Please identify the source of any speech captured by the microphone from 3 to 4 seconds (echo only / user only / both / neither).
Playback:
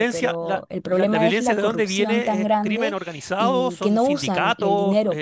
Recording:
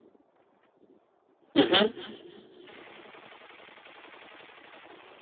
neither